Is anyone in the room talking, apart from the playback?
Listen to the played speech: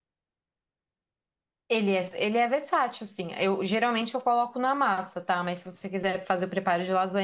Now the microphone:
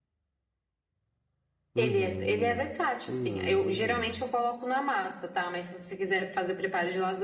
Yes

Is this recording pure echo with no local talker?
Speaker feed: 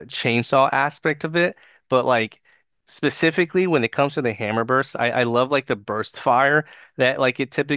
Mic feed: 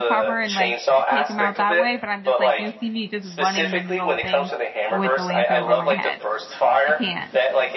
No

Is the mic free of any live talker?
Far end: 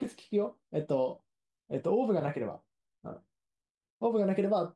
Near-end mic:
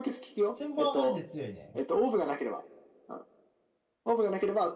No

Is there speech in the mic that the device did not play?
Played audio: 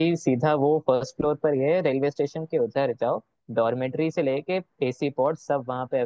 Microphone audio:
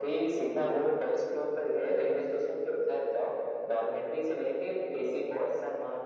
No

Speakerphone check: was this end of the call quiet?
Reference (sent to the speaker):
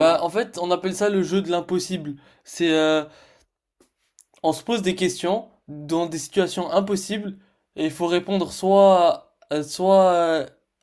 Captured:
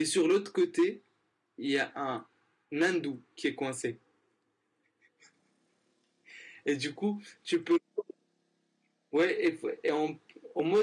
No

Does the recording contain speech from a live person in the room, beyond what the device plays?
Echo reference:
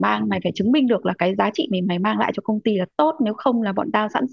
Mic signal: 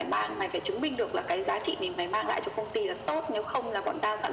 No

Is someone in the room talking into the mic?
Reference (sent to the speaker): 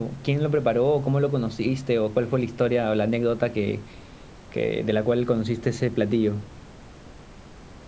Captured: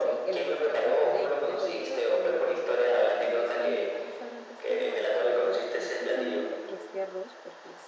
Yes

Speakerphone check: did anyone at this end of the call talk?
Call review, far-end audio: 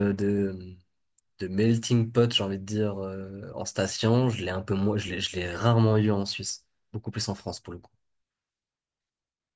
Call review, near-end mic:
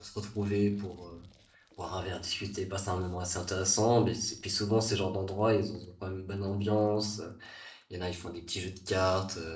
Yes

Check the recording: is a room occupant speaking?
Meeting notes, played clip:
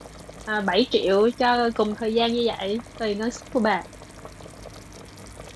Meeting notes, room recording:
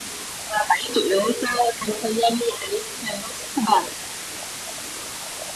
No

